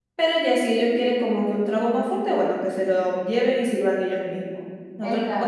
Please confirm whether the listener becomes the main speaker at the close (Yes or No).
No